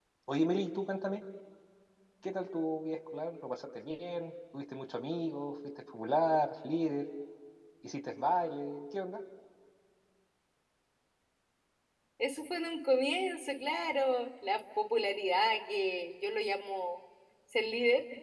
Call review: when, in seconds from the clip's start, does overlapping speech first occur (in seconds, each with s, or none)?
none